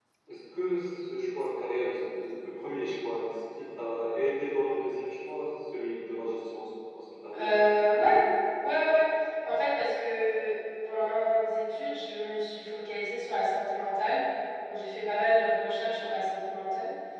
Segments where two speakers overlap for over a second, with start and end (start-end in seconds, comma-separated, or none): none